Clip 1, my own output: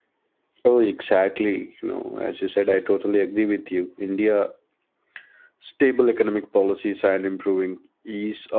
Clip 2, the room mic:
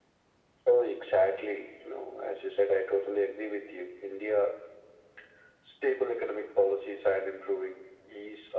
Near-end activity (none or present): none